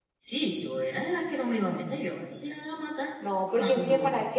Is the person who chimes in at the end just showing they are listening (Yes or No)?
No